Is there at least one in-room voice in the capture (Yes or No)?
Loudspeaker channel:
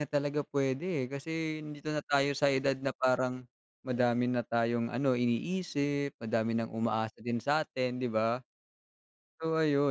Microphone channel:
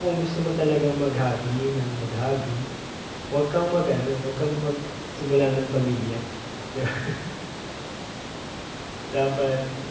Yes